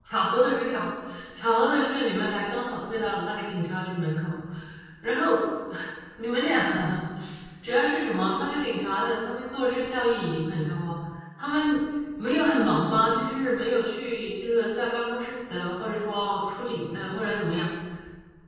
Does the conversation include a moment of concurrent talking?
No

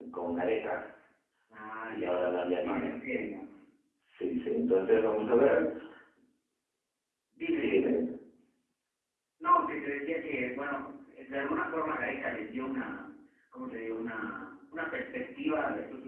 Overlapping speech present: Yes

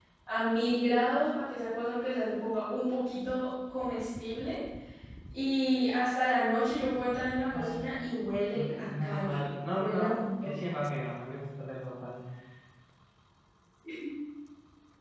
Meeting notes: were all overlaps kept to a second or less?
No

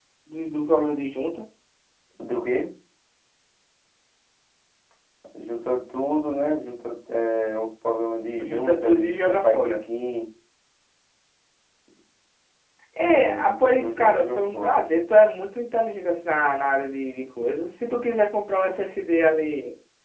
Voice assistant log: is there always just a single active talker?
No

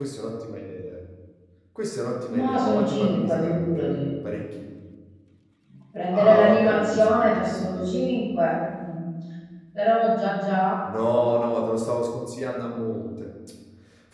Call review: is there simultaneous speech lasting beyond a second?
Yes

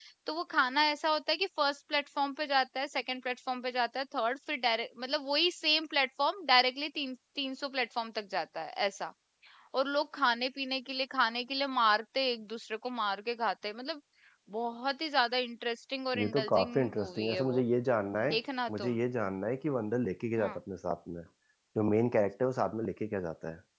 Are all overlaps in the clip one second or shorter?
No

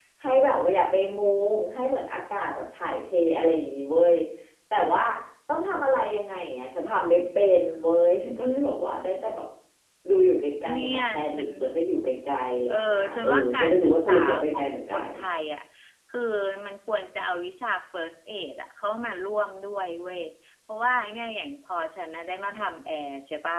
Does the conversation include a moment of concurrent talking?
Yes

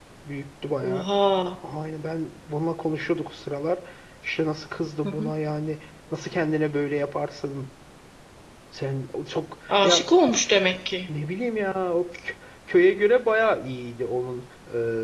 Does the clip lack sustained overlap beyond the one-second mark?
Yes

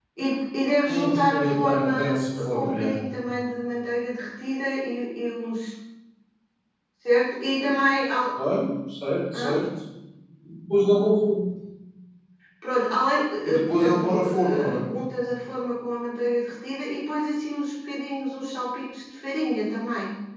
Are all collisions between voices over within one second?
No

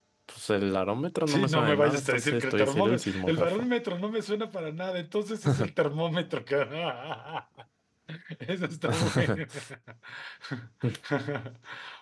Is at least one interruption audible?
Yes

